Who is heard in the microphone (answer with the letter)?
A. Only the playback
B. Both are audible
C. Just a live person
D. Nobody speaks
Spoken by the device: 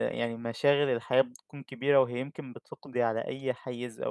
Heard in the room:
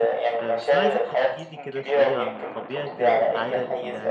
B